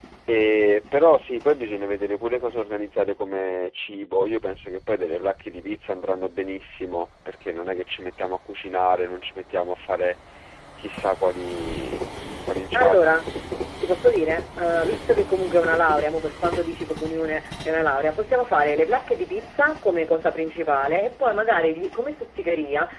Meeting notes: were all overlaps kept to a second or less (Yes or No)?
Yes